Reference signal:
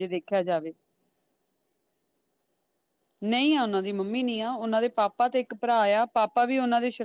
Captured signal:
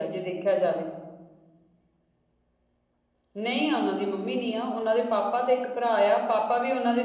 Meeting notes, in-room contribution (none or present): none